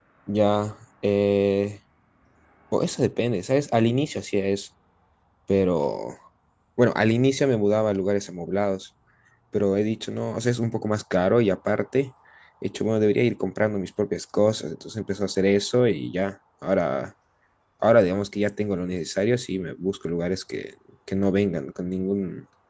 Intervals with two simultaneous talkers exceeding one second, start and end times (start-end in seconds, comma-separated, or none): none